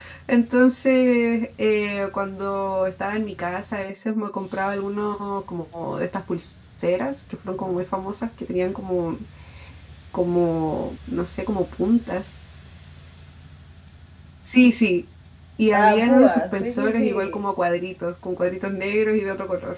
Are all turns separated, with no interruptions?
No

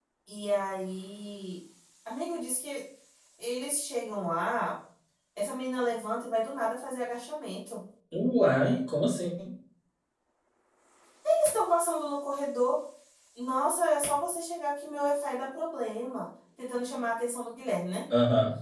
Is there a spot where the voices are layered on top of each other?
No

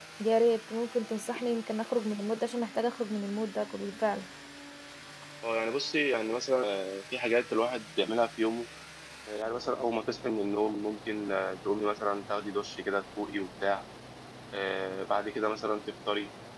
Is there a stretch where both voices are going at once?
No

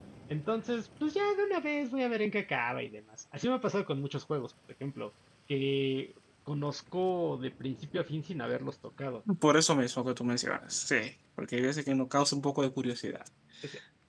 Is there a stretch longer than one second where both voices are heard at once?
No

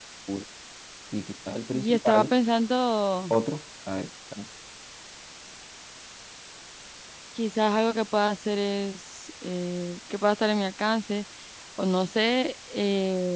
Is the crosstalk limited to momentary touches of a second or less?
Yes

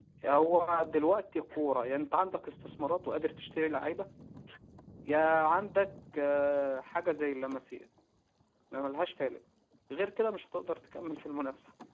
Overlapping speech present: No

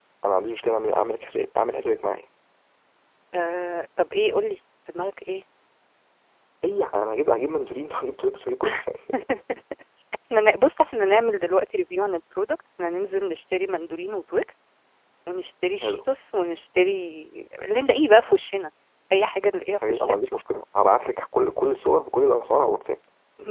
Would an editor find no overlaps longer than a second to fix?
Yes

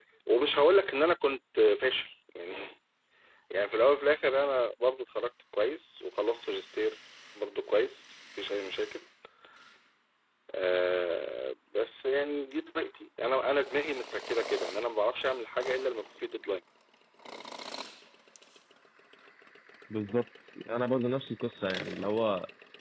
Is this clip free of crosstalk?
Yes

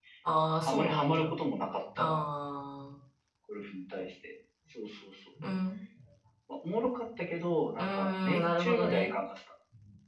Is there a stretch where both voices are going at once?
Yes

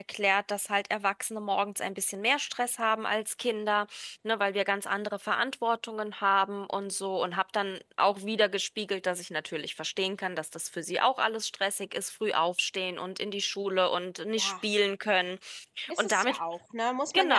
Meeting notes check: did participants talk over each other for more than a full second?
No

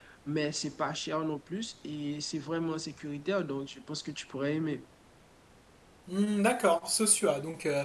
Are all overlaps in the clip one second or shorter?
Yes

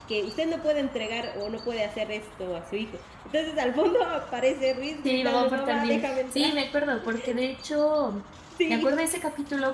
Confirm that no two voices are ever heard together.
No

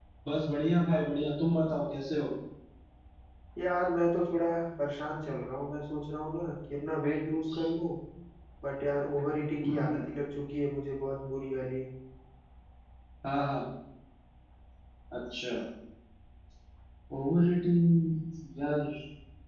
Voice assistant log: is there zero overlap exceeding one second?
Yes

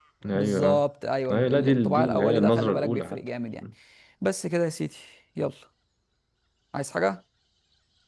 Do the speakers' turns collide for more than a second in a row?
Yes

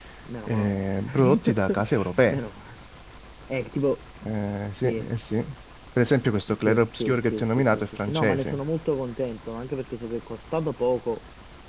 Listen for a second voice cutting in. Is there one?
Yes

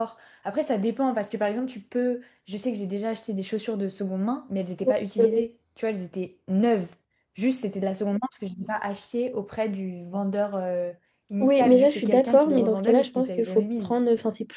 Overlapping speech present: Yes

